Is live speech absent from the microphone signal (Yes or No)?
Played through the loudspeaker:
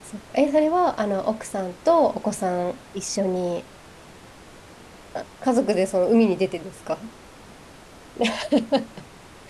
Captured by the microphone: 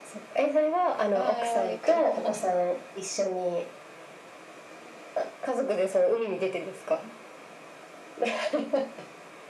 No